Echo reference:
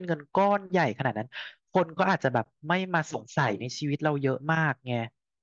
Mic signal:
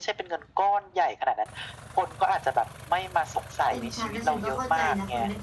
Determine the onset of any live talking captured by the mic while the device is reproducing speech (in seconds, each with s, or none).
3.7 s